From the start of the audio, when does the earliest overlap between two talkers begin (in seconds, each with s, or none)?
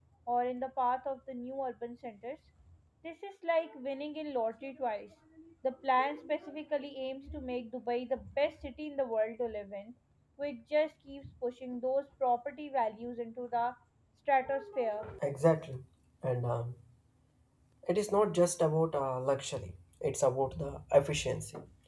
none